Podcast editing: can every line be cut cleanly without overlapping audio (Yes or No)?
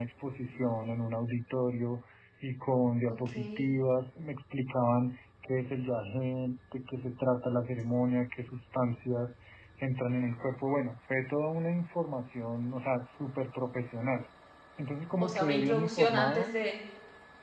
No